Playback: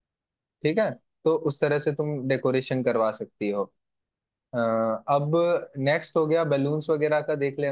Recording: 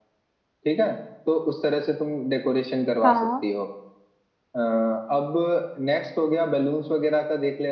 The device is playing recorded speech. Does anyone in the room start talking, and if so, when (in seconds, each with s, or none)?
3.0 s